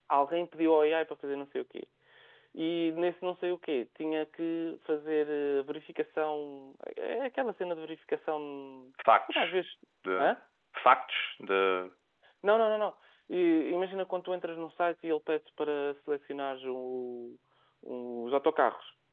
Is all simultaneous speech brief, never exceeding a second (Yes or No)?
Yes